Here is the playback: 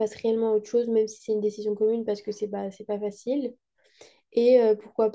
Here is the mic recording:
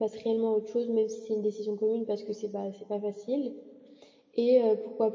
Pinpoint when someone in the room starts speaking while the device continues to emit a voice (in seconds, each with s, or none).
none